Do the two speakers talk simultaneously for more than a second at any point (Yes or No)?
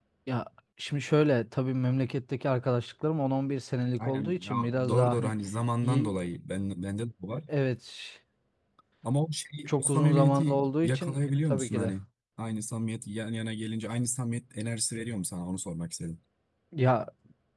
Yes